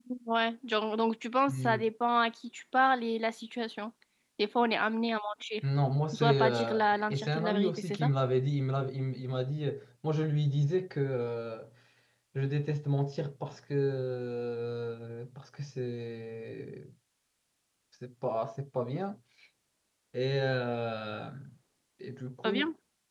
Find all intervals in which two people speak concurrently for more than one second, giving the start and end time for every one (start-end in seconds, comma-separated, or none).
6.1-8.1